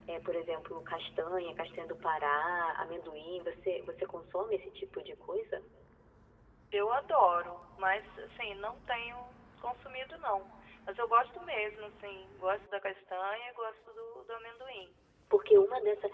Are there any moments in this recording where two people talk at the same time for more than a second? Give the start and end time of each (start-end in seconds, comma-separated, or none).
none